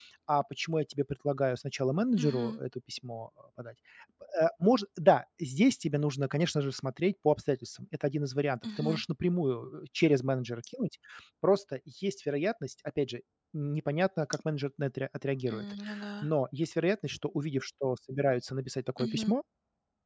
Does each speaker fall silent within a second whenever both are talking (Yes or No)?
Yes